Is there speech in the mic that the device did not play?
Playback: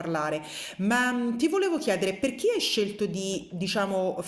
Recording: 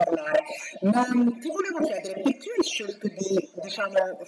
No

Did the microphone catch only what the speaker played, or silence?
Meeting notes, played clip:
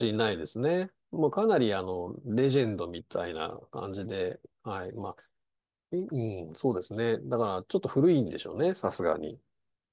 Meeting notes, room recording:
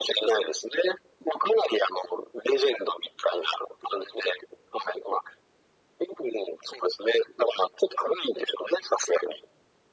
Yes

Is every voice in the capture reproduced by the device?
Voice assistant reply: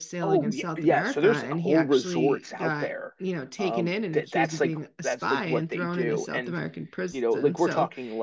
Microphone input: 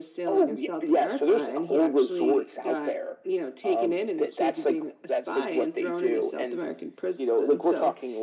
Yes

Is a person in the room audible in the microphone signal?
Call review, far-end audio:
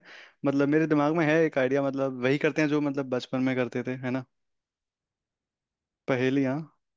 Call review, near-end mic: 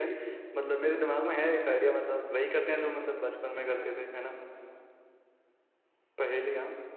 No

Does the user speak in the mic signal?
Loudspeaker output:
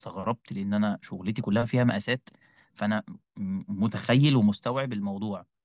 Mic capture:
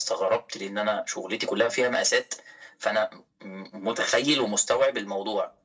No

